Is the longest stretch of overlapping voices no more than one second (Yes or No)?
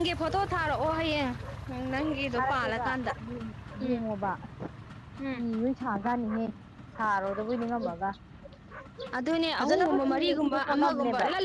No